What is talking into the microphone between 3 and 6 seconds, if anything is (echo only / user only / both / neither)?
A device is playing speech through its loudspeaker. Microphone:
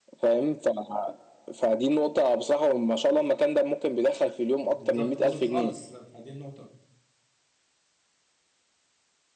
both